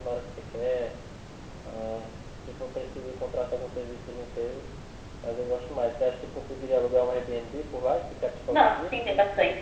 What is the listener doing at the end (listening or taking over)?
taking over